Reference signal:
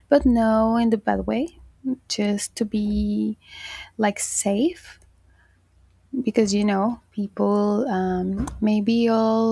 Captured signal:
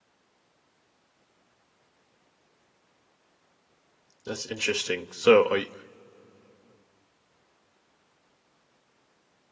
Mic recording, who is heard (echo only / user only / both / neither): user only